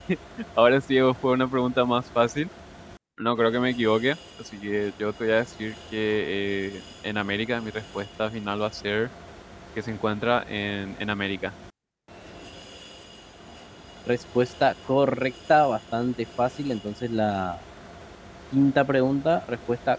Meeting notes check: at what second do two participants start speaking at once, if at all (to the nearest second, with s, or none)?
none